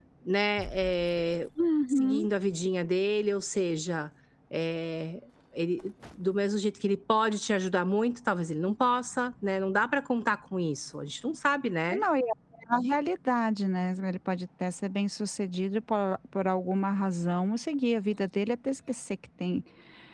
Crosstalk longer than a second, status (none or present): none